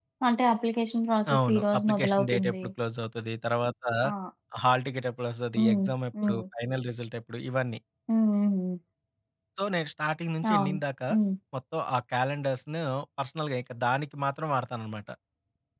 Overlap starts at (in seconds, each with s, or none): 1.4 s